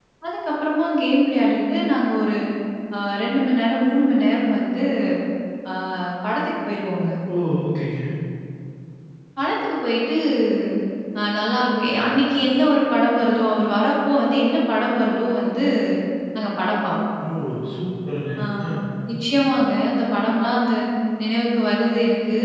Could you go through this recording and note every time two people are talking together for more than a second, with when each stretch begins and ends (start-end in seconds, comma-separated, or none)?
none